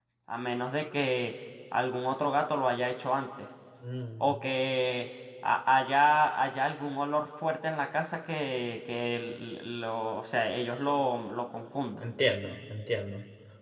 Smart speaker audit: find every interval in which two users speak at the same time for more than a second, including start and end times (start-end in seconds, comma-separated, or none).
none